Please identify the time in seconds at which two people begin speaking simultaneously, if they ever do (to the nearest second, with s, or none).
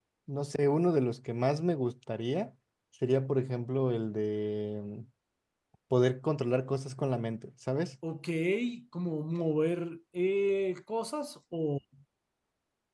none